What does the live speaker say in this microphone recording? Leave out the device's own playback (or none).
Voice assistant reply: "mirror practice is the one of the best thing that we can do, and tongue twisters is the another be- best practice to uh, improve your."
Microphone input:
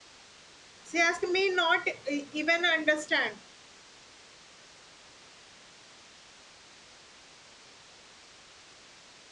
say ask may not uh, even understand,